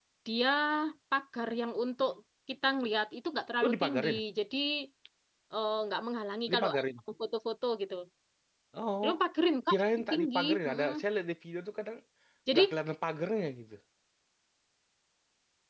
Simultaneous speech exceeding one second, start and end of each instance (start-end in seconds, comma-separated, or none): 9.7-10.9